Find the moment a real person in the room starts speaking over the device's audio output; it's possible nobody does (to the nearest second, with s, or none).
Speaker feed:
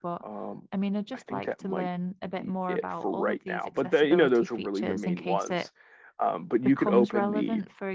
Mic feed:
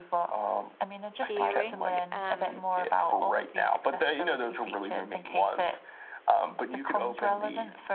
1 s